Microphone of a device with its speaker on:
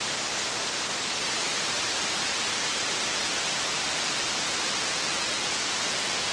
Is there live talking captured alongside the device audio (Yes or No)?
No